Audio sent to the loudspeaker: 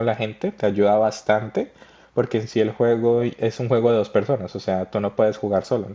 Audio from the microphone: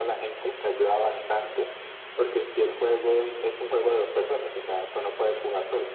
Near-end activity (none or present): none